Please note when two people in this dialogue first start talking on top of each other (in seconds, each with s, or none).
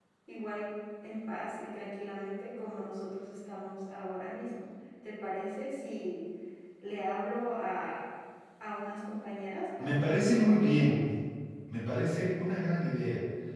9.8 s